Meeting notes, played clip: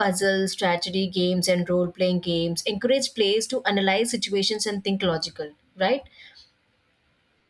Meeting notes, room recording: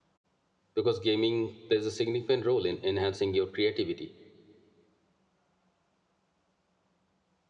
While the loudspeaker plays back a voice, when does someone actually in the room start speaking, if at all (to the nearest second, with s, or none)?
1 s